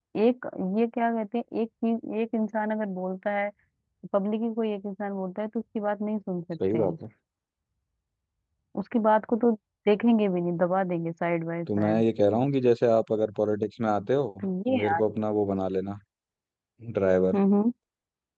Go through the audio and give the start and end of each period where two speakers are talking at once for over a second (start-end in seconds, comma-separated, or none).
none